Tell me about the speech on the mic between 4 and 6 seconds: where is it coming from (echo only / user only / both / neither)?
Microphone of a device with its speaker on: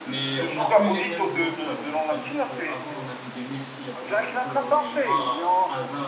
both